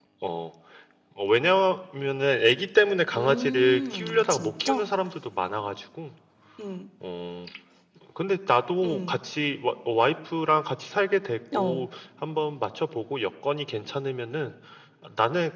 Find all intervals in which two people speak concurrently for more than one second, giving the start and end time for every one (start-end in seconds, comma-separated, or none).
3.2-4.8